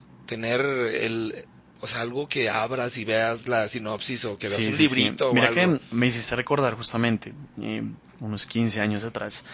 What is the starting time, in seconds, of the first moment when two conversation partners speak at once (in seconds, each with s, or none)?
4.4 s